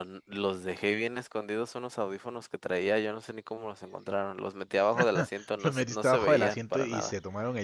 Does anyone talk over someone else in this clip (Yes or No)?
Yes